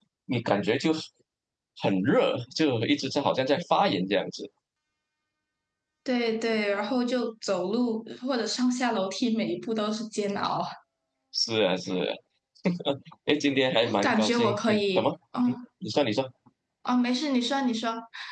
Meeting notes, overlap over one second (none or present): present